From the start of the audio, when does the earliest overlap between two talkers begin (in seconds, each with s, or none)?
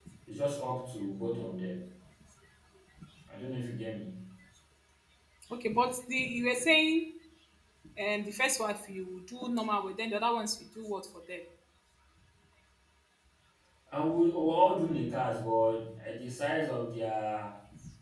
none